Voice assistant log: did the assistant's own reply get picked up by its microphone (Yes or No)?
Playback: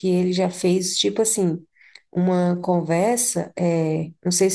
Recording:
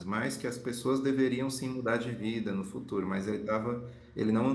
No